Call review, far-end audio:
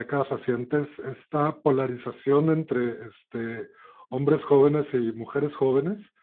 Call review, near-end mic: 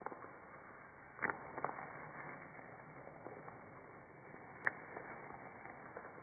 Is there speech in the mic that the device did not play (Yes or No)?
No